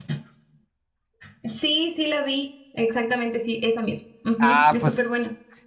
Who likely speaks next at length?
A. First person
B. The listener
B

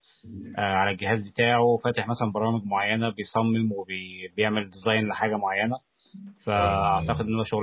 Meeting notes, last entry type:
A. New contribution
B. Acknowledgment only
B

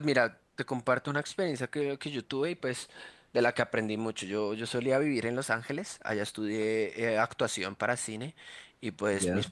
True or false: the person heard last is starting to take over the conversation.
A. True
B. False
B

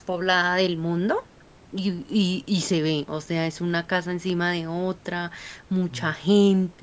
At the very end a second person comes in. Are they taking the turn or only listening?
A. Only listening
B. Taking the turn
A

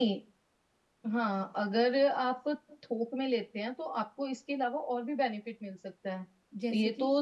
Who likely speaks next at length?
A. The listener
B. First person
B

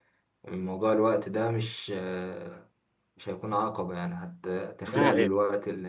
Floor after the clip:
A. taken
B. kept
B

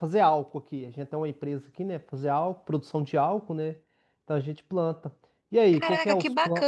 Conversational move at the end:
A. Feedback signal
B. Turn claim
B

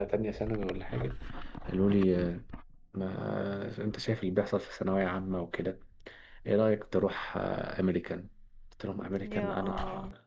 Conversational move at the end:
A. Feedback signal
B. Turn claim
A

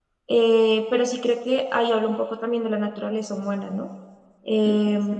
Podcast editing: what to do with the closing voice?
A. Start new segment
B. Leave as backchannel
B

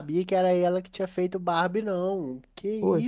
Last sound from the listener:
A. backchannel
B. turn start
B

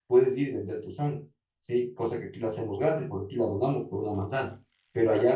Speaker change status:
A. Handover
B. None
B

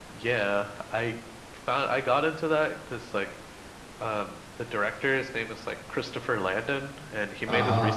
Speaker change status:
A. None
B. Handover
A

